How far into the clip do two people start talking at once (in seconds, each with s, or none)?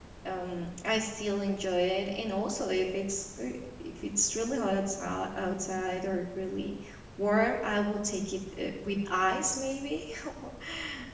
none